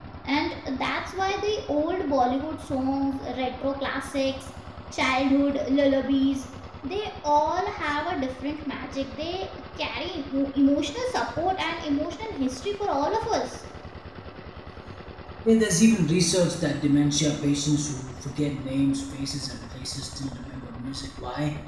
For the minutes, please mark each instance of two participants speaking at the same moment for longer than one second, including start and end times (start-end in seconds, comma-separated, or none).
none